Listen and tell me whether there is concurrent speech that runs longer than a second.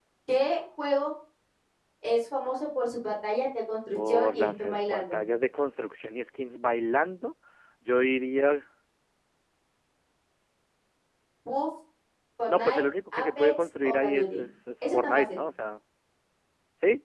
Yes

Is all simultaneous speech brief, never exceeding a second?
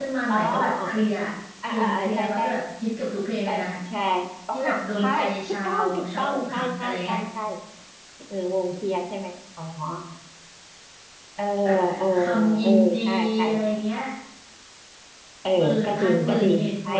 No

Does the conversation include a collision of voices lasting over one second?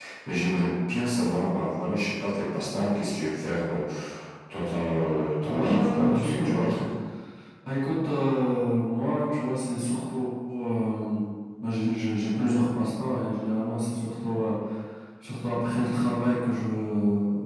Yes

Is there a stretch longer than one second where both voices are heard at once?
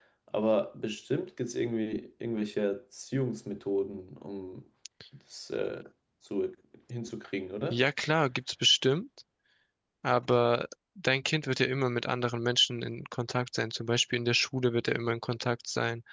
No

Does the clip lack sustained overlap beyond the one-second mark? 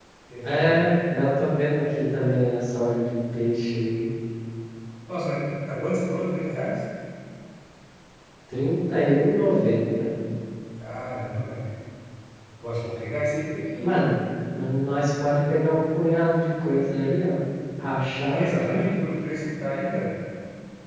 Yes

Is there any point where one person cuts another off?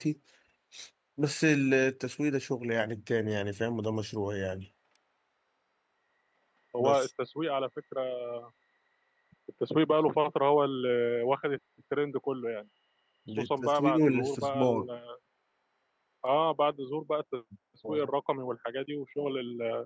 Yes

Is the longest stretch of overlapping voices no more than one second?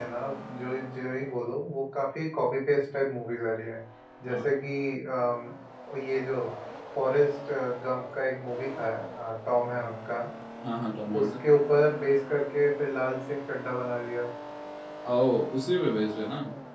Yes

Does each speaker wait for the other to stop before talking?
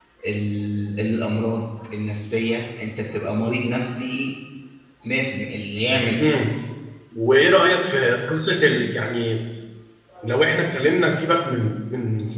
Yes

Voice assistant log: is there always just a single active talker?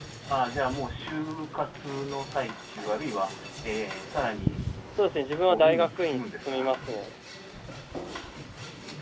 No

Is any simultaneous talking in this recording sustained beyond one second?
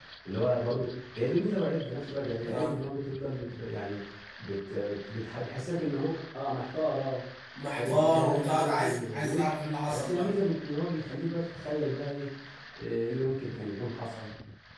Yes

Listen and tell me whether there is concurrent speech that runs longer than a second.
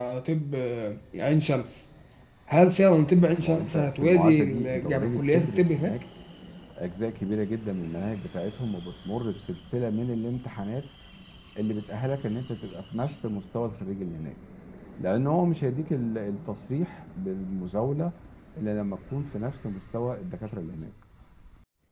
Yes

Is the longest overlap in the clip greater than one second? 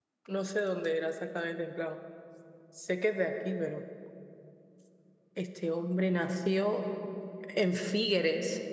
No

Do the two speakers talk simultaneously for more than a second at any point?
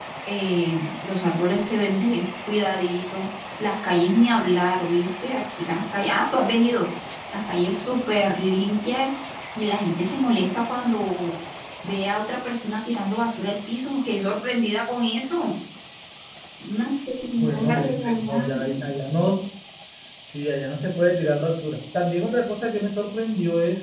Yes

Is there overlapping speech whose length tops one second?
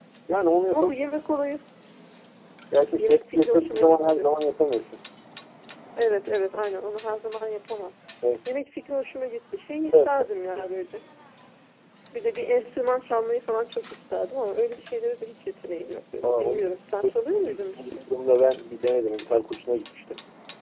Yes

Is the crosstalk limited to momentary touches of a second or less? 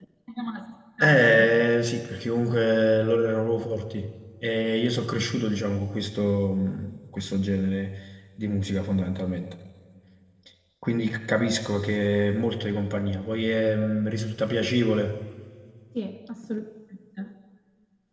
Yes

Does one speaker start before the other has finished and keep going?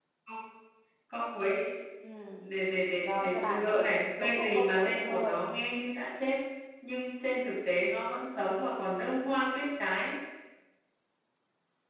Yes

